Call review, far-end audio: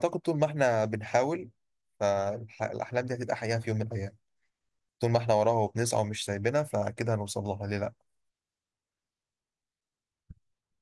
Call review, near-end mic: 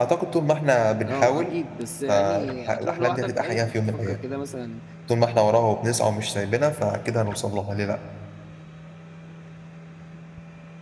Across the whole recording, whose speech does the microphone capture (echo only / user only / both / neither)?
both